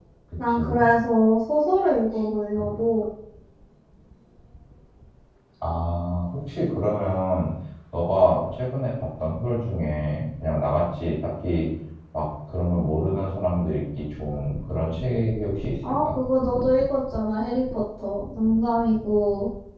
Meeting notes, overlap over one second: none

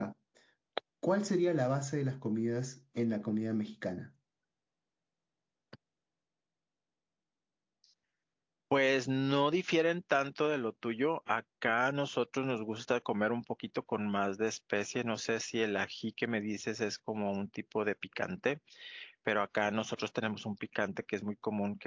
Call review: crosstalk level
none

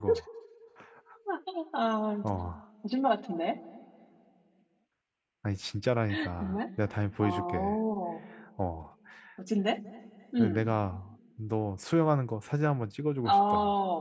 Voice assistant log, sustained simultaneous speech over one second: none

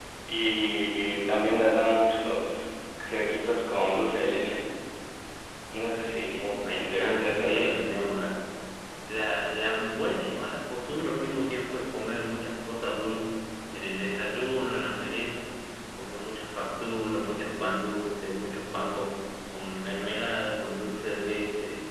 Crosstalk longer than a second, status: present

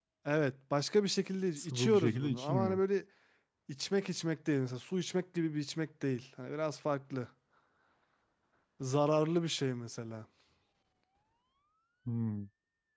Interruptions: present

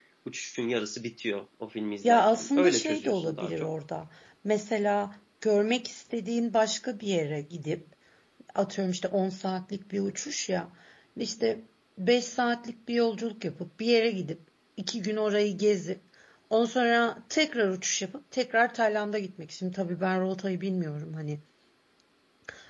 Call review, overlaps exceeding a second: present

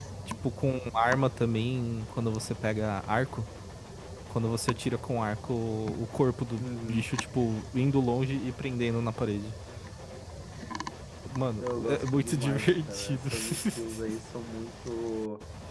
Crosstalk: present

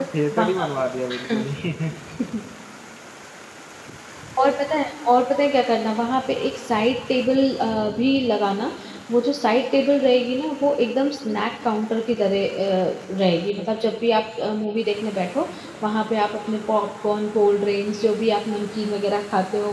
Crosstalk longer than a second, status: none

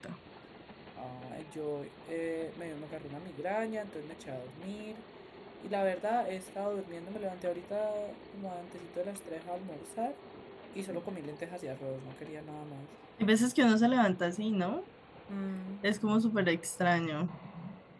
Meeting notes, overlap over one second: none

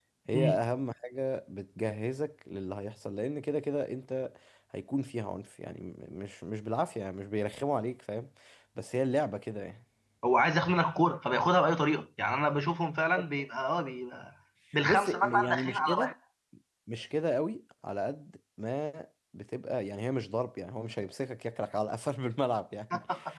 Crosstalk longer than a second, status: present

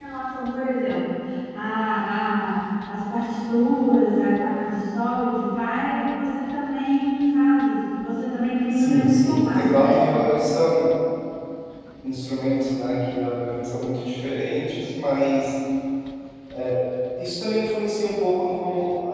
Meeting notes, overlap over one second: present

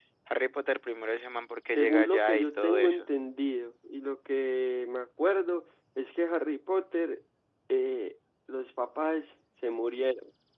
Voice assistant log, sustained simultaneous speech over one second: present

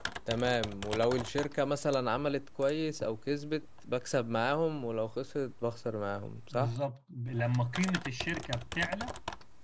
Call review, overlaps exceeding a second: none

